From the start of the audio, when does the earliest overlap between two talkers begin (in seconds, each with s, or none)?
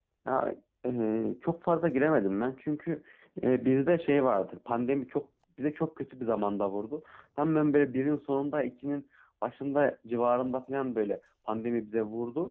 none